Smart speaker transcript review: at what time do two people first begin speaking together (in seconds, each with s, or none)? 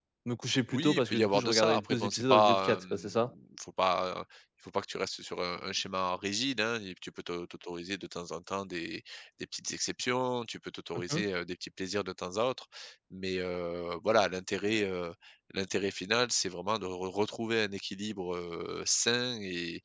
0.7 s